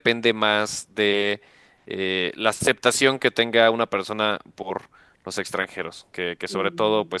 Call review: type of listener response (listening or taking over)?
listening